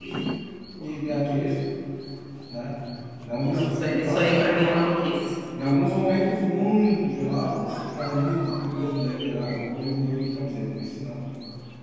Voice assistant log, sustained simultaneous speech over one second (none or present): present